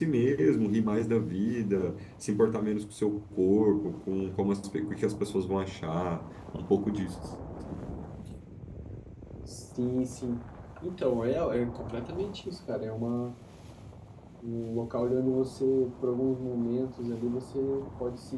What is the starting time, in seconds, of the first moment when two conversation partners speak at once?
none

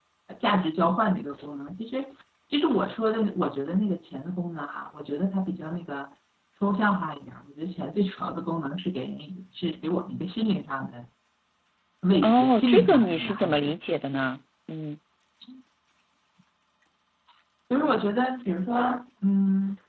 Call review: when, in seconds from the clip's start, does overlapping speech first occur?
12.2 s

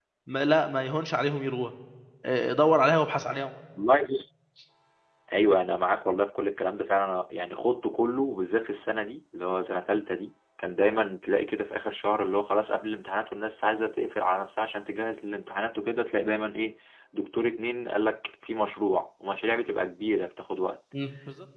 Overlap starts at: none

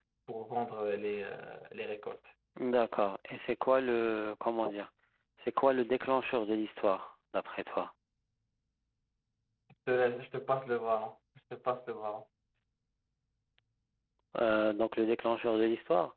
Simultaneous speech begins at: none

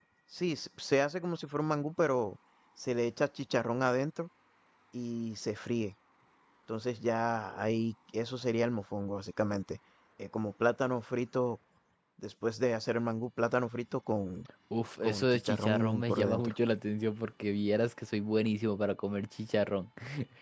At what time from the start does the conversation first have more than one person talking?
15.0 s

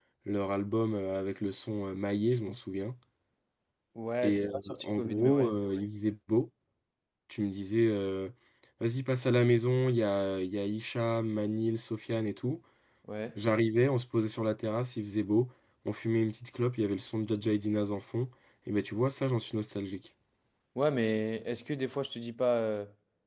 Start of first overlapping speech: 4.2 s

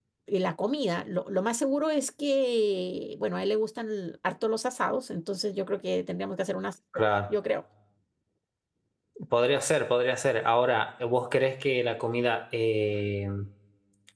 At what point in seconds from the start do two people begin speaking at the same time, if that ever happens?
none

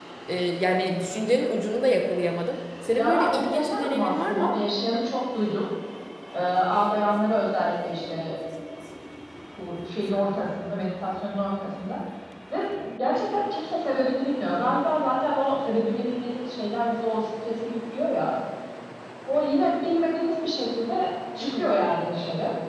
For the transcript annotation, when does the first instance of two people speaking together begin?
3.0 s

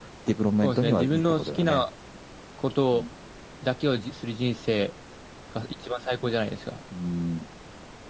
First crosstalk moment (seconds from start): 0.6 s

